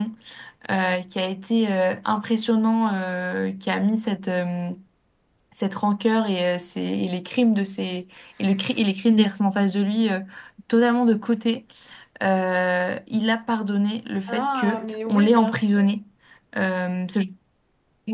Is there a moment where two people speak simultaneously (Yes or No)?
Yes